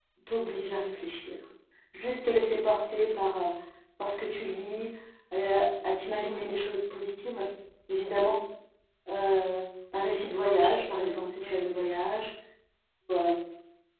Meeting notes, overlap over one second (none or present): present